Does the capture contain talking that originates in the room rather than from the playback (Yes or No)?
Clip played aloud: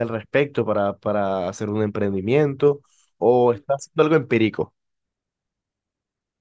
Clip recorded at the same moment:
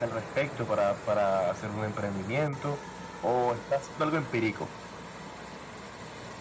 No